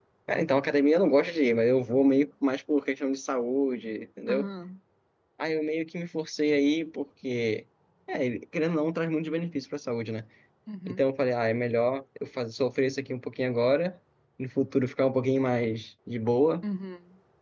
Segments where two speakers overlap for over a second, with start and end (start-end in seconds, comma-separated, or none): none